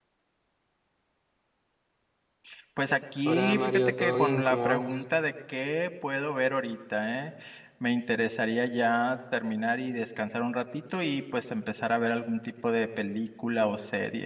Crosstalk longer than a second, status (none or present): present